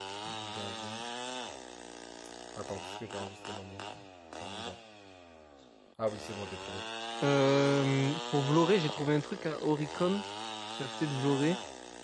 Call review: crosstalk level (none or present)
none